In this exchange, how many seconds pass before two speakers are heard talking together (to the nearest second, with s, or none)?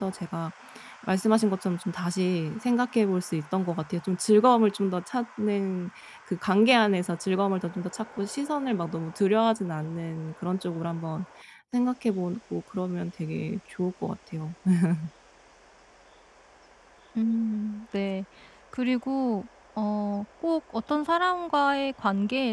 none